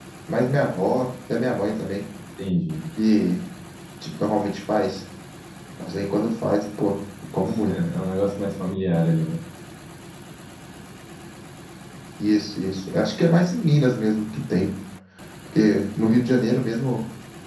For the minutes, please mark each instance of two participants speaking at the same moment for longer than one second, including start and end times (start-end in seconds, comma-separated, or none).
none